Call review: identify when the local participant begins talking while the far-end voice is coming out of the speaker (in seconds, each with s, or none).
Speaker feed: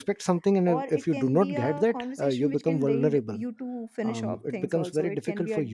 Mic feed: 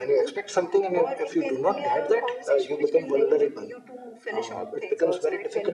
none